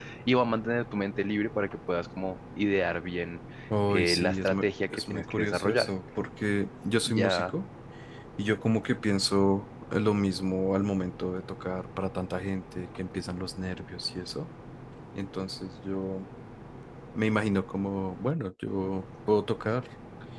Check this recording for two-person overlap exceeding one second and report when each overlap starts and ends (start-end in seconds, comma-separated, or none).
3.9-5.9